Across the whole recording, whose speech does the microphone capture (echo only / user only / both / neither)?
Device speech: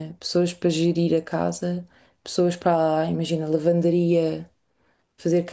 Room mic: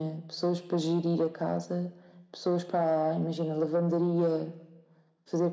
echo only